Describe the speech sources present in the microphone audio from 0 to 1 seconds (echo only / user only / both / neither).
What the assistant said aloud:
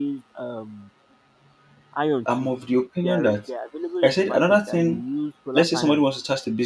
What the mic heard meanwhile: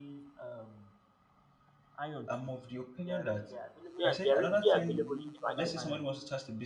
echo only